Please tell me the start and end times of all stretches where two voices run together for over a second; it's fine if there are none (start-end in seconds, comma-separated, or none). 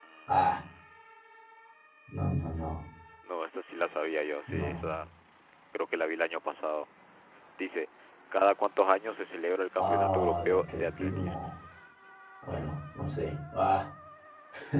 9.8-11.5